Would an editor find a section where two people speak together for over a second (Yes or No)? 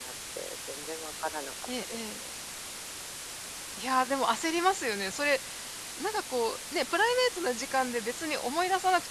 No